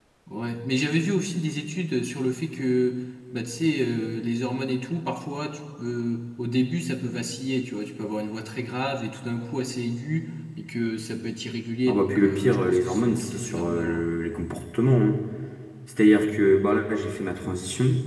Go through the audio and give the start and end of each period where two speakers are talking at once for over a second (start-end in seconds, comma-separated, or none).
11.9-14.1